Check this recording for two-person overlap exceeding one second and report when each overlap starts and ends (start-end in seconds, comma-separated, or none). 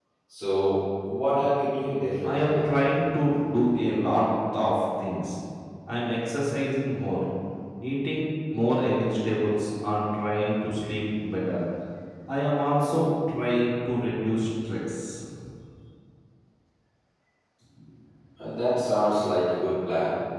none